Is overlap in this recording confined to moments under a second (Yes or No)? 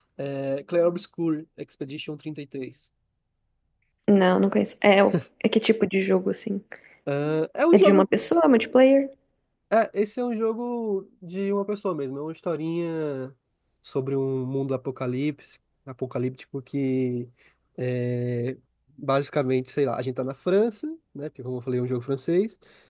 Yes